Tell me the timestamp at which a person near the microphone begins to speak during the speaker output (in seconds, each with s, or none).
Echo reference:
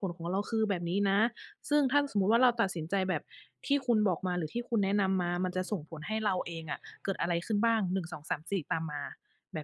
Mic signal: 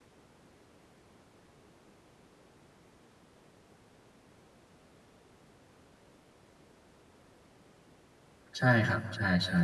8.6 s